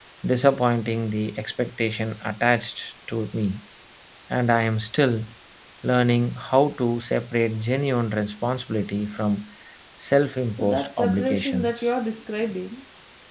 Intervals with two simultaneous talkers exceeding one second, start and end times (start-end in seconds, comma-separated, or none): 10.5-11.9